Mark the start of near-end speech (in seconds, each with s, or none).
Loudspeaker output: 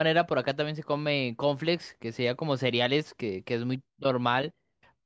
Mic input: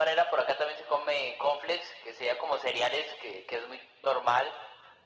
none